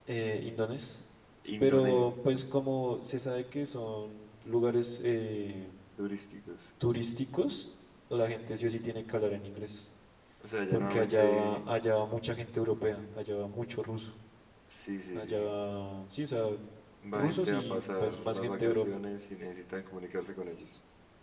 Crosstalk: present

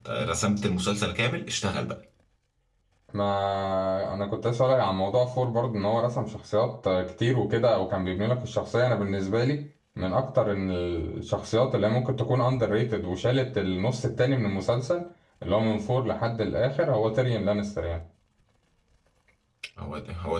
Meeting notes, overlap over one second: none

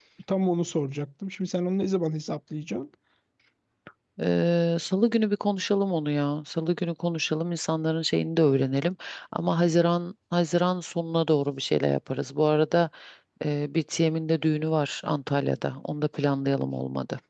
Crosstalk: none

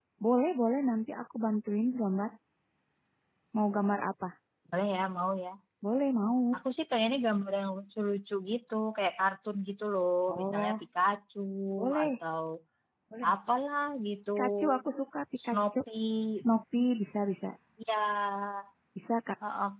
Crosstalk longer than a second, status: none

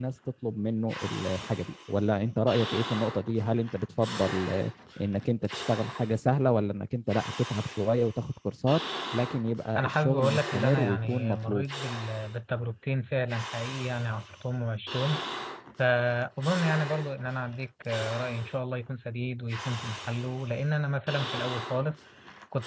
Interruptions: present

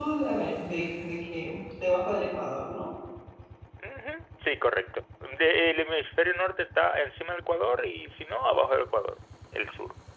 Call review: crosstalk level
none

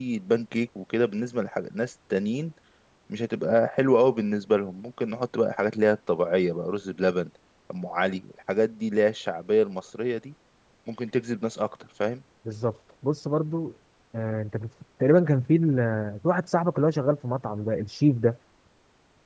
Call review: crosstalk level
none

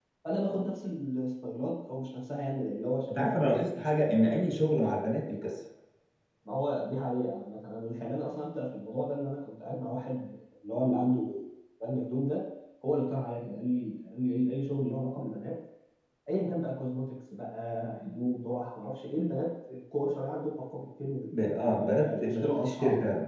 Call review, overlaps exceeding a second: present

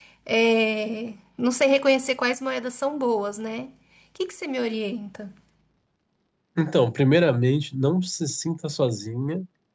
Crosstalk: none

